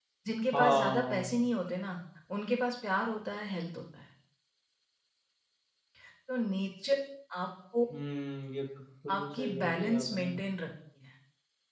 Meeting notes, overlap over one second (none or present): present